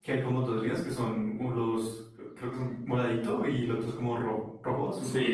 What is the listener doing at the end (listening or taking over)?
taking over